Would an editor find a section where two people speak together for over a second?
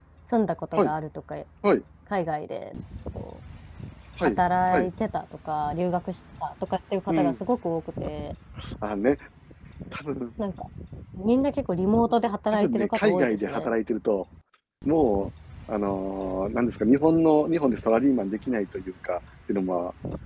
Yes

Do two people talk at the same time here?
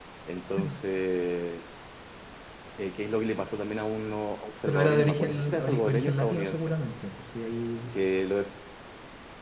Yes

